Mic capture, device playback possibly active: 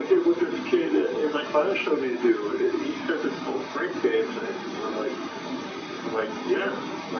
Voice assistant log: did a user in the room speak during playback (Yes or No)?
No